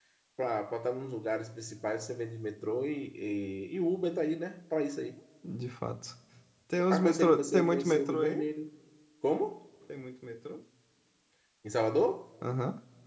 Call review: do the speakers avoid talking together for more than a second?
No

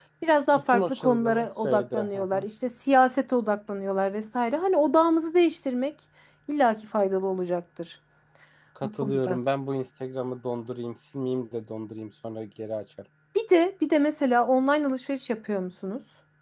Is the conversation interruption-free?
No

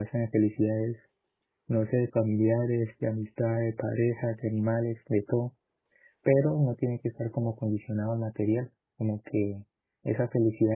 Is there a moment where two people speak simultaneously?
No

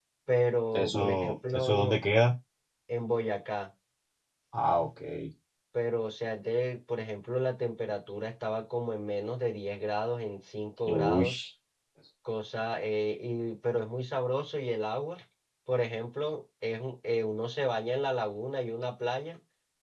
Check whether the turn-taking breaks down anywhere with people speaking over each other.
Yes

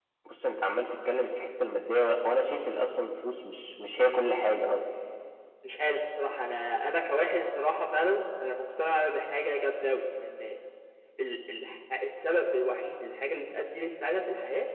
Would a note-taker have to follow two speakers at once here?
No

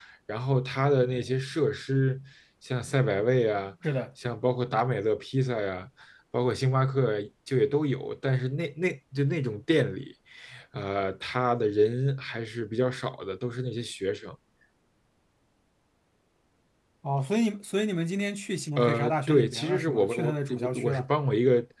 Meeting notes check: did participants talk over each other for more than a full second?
Yes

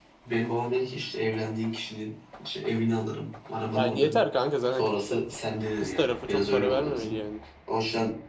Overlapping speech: Yes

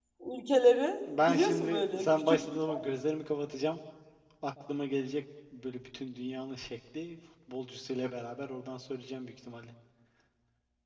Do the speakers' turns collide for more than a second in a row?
Yes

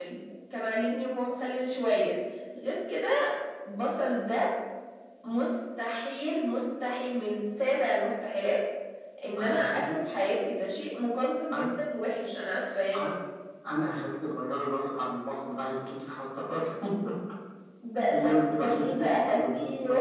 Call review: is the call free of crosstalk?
No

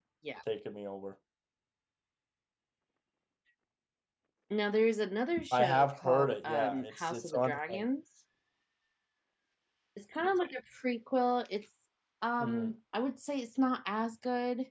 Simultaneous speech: Yes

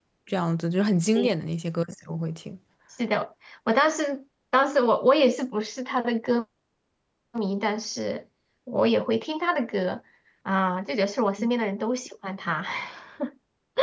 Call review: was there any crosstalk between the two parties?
No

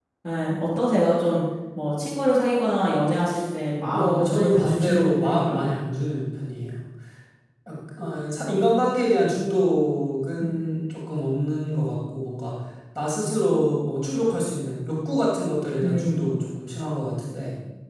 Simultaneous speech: Yes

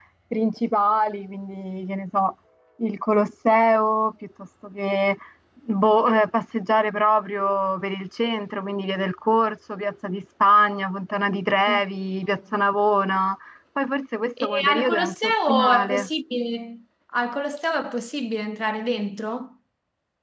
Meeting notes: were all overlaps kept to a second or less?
No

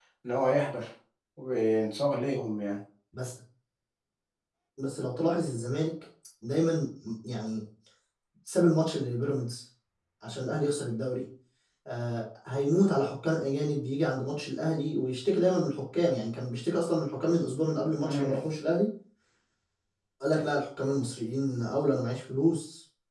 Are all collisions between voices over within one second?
Yes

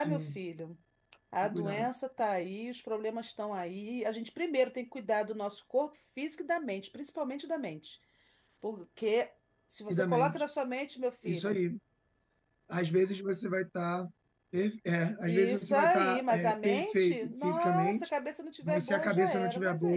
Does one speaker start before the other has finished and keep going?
Yes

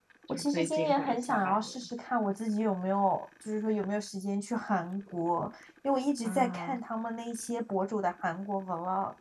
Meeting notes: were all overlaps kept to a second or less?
No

